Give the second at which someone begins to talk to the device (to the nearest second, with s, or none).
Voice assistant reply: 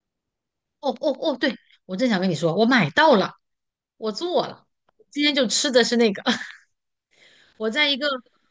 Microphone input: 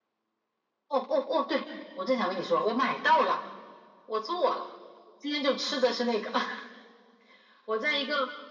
none